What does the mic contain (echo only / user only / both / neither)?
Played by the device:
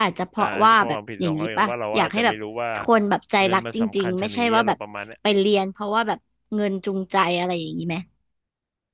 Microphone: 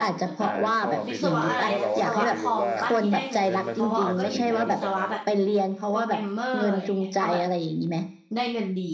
both